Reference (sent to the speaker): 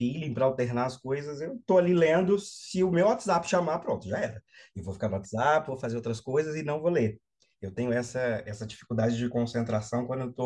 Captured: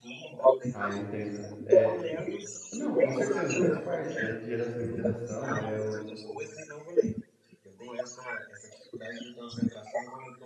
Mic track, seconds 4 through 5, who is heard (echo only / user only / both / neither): both